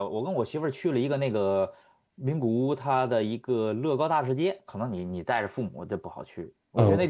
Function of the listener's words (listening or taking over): taking over